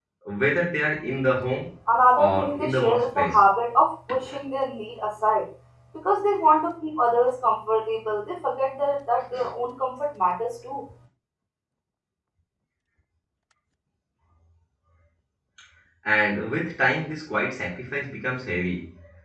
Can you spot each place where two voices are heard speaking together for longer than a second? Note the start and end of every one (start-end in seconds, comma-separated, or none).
2.1-3.4